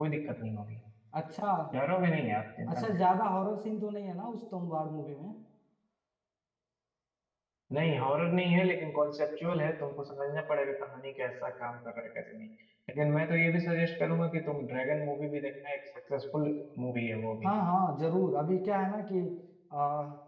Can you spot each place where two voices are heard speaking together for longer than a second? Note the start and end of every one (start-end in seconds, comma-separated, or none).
none